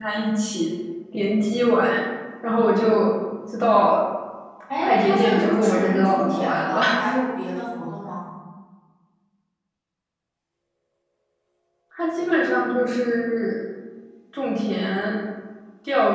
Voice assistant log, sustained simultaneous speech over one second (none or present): present